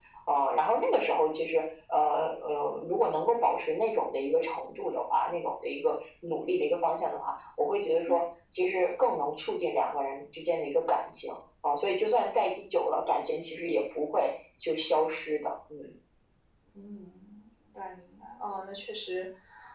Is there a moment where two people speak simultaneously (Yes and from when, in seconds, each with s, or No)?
No